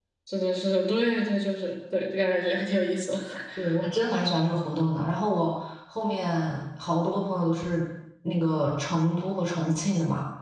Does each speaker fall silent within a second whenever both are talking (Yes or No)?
Yes